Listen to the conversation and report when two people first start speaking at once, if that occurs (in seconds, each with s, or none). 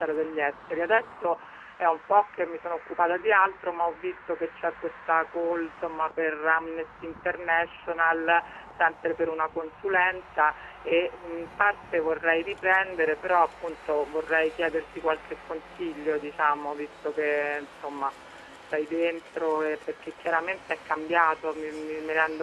none